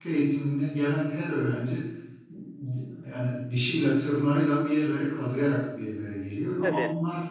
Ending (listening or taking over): listening